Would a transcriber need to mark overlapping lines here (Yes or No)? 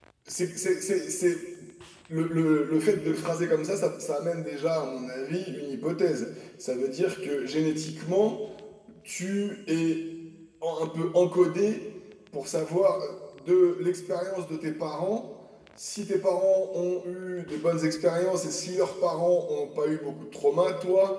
No